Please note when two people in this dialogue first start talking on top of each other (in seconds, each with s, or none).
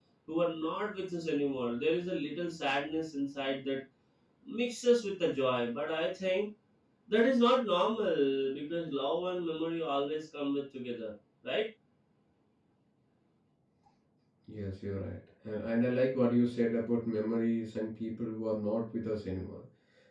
none